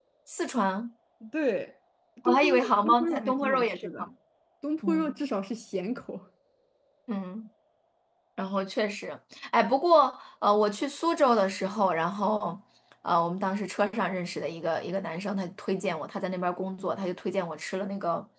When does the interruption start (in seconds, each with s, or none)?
2.2 s